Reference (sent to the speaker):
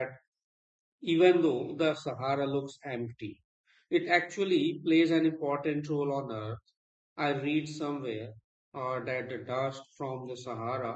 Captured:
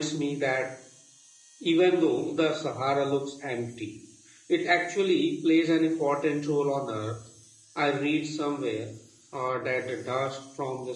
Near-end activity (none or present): none